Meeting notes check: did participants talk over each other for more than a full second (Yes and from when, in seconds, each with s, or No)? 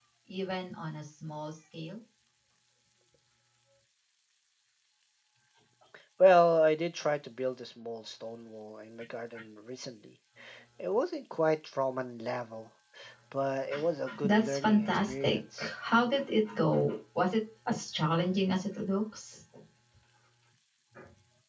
Yes, from 14.2 s